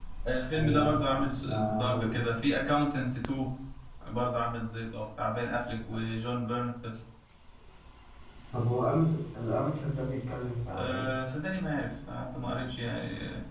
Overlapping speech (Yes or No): Yes